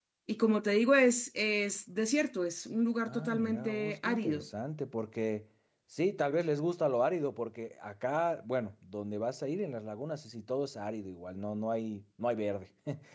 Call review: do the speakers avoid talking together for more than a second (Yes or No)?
No